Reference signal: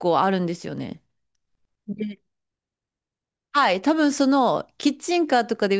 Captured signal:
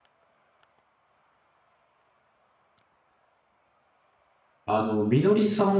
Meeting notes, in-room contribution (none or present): present